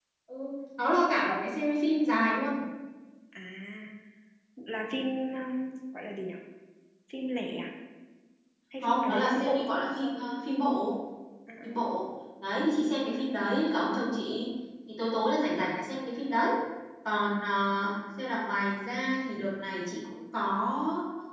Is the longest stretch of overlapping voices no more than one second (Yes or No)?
No